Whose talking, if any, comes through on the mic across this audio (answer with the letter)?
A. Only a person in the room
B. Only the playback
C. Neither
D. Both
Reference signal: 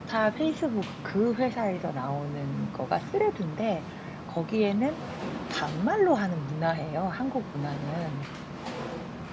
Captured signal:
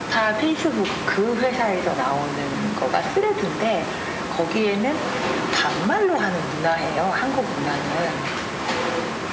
B